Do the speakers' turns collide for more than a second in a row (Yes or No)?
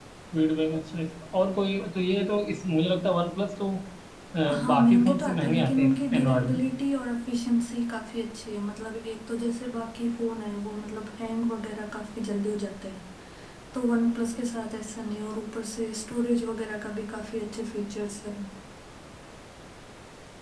Yes